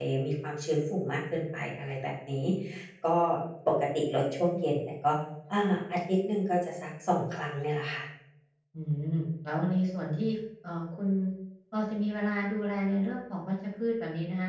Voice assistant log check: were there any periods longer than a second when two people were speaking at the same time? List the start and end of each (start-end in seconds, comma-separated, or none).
none